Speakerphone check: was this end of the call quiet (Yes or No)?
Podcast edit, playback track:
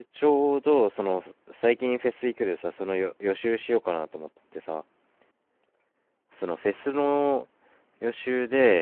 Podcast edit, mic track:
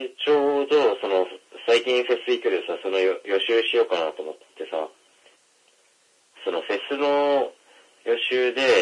Yes